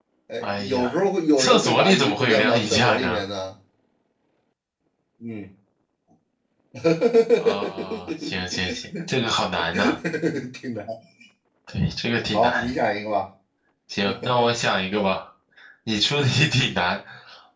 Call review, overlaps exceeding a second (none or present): present